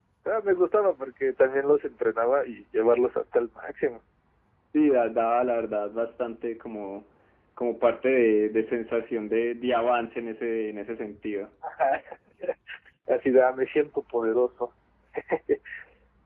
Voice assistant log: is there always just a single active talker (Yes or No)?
Yes